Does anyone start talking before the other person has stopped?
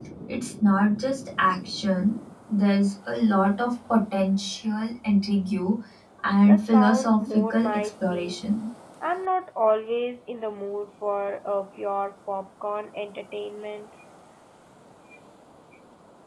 Yes, from 6.5 s

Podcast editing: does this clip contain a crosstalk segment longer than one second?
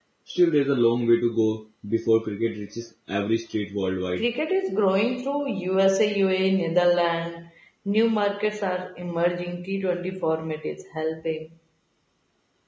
No

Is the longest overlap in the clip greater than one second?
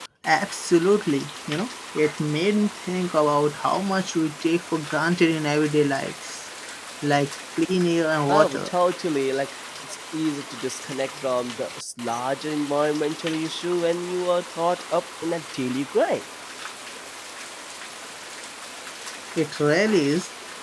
No

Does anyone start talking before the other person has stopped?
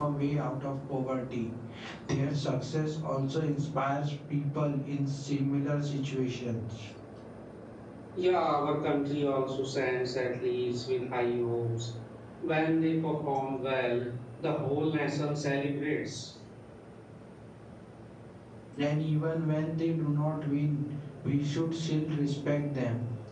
No

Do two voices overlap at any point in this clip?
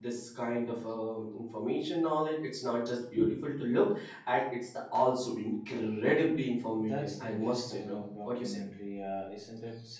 Yes, from 6.8 s

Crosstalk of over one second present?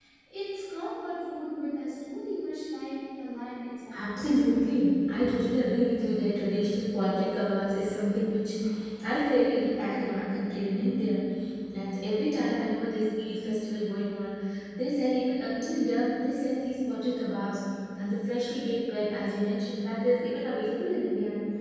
No

